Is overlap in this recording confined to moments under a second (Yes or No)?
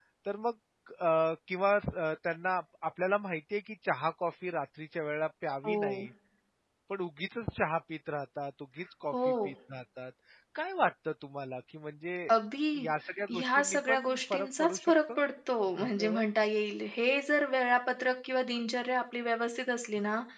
No